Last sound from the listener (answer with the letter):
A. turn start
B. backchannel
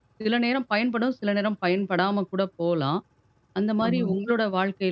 B